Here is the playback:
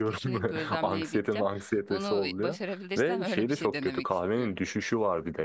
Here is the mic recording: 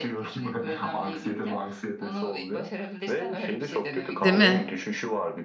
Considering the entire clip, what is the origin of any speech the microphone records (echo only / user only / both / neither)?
both